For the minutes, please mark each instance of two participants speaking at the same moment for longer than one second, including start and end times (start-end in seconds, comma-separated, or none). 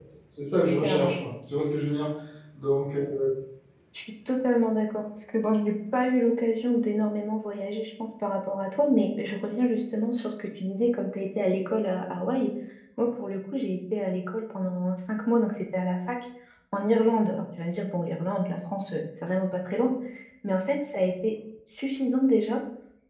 none